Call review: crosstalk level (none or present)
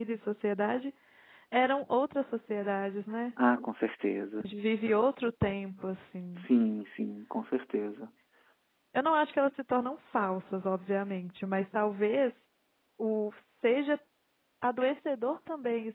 none